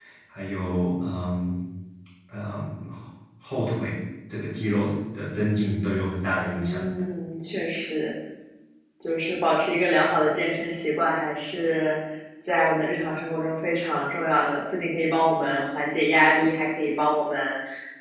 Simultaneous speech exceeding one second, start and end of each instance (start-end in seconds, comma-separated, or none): none